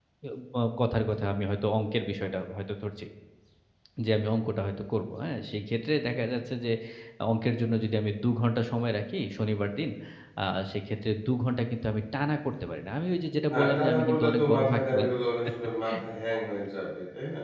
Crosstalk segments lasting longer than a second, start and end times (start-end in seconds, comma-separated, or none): 13.5-15.1